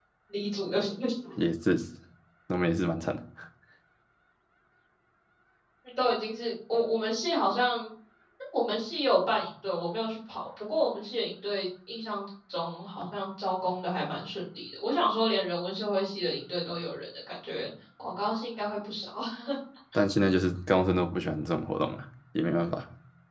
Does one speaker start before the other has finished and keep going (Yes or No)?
No